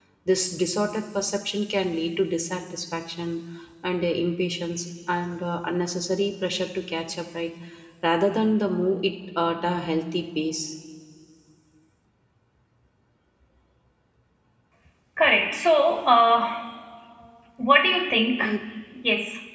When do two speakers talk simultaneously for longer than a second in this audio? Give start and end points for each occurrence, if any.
none

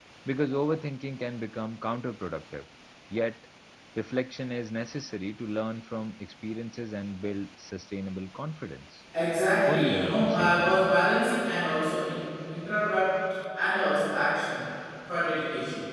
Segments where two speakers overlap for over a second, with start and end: 9.7-10.9

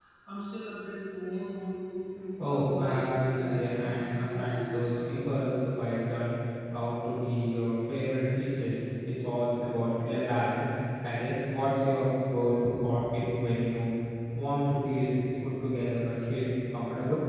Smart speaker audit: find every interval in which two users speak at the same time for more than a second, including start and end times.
2.4-5.0

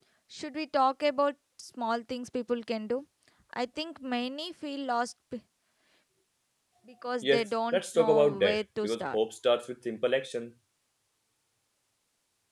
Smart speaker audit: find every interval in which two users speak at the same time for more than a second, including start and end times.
7.2-9.2

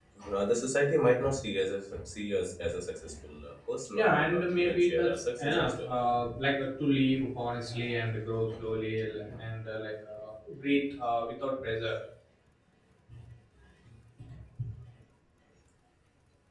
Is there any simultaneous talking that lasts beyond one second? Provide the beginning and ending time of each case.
3.9-5.9

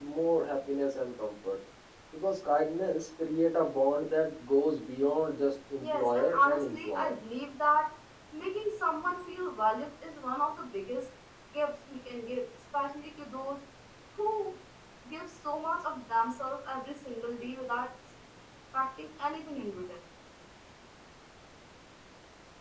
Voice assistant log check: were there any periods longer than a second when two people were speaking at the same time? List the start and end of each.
5.8-7.1

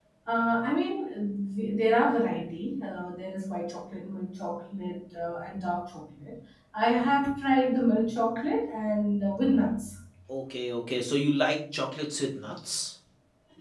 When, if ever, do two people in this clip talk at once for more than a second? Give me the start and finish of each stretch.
none

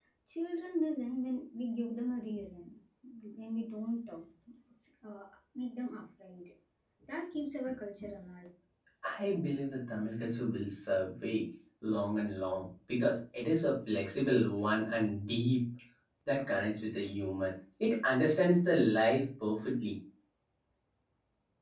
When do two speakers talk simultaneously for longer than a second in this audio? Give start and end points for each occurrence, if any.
none

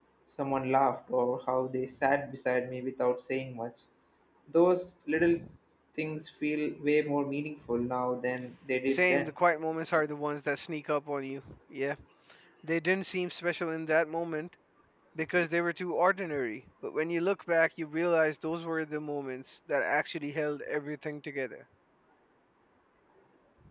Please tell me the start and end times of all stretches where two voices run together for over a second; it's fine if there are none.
none

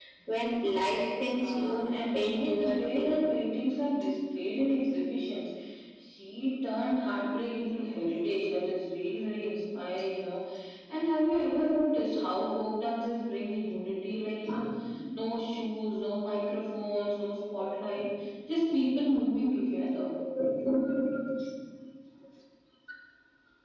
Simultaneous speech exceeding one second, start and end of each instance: 1.3-3.3

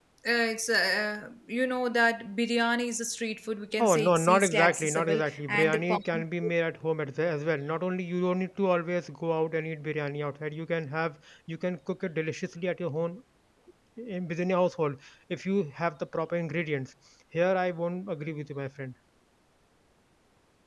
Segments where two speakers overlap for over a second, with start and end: 3.8-6.0

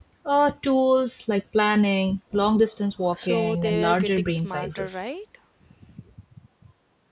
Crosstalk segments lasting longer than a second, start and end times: 3.2-5.0

